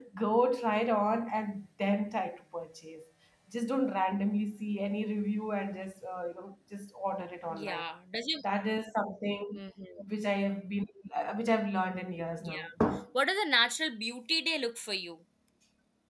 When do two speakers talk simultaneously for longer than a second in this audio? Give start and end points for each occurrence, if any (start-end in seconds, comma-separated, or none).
none